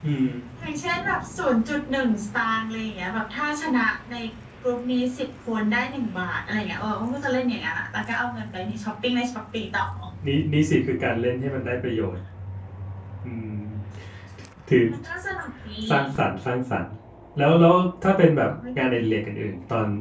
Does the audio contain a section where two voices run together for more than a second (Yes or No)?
No